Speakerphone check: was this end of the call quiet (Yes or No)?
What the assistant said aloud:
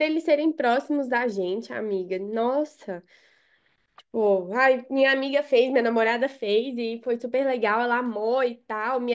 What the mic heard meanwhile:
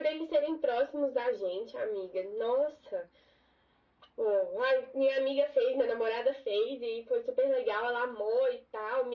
Yes